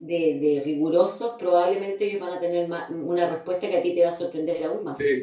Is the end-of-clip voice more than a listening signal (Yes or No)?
Yes